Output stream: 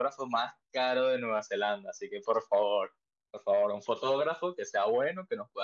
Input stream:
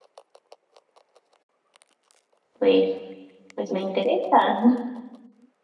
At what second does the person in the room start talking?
3 s

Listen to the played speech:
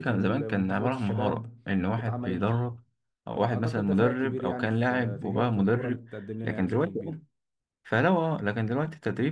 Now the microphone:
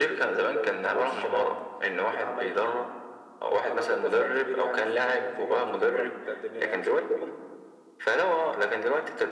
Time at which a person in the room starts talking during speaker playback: none

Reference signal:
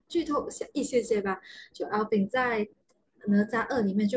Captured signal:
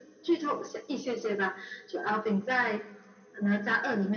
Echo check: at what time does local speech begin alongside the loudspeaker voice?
none

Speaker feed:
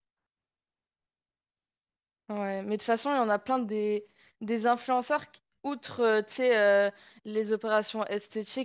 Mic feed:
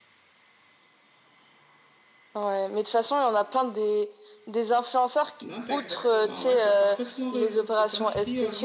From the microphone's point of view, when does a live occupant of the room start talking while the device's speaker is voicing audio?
5 s

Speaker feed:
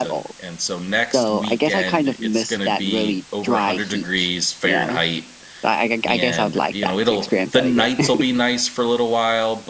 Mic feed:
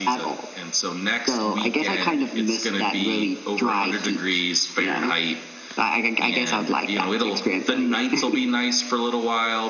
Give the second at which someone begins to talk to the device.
none

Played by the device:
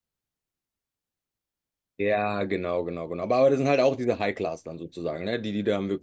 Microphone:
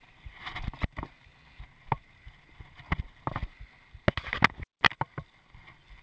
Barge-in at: none

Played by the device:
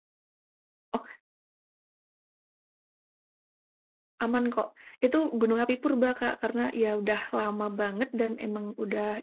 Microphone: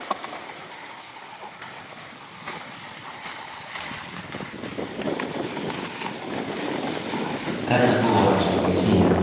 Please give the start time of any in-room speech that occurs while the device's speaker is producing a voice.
8 s

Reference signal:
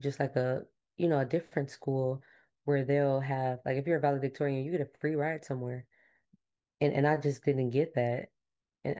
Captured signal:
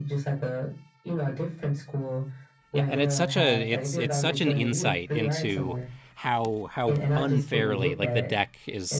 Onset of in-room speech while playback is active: 3 s

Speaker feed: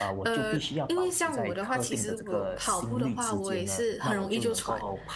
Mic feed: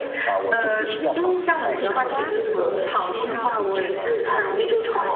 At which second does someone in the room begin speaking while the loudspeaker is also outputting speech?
2 s

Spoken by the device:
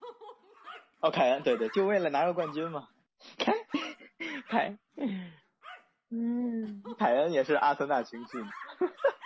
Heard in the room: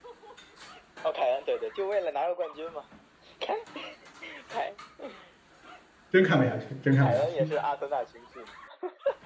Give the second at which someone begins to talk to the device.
6 s

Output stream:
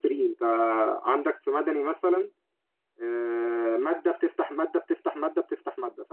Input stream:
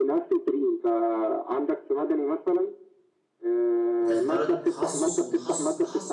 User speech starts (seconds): 4 s

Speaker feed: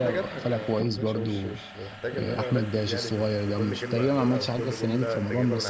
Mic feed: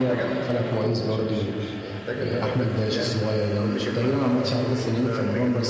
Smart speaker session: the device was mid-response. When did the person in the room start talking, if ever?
none

